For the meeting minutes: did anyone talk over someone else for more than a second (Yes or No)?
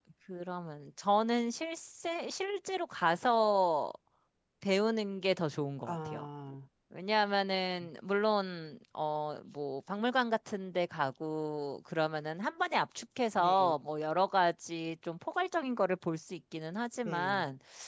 No